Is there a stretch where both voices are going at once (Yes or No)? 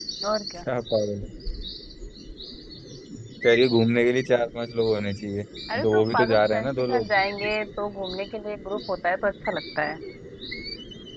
Yes